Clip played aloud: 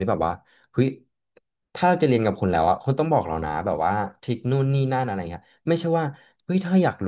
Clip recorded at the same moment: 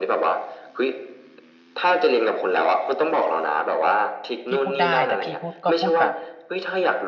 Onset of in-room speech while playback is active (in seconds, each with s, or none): 4.5 s